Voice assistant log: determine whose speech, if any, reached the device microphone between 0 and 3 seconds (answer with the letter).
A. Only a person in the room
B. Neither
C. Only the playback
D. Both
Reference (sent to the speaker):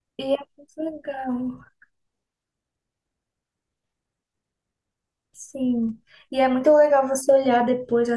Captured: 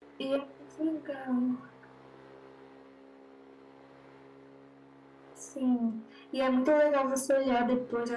C